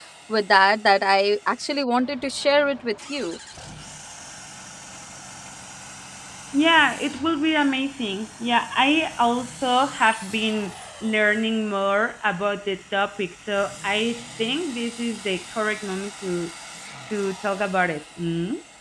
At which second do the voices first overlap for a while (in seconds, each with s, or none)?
none